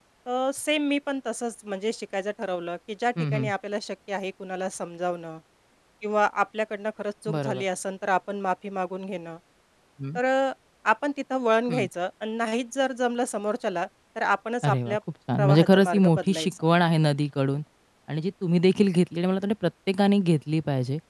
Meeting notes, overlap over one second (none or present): present